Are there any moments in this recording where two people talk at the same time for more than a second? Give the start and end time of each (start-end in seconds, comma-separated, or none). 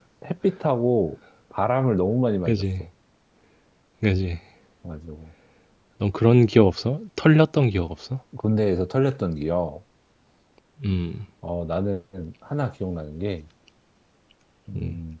none